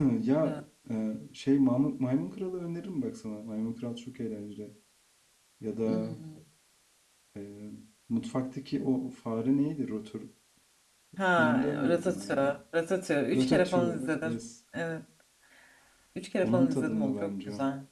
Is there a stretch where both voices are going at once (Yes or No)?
Yes